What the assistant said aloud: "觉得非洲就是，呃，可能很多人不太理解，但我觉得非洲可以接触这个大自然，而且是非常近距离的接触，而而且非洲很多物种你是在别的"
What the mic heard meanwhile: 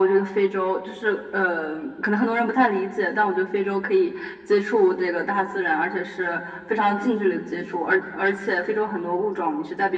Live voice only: none

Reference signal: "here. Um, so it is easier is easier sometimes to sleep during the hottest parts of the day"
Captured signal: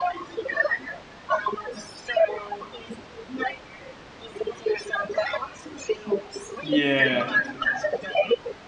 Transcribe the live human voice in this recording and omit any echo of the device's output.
Yeah.

